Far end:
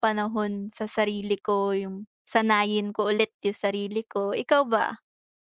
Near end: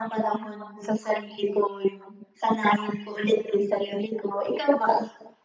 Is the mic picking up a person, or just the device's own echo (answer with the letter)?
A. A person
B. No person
B